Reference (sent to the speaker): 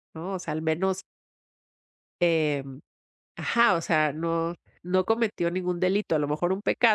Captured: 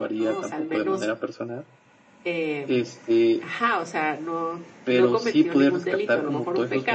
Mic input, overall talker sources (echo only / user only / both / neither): both